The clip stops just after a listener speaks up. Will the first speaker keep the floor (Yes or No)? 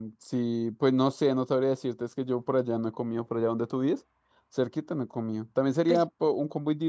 Yes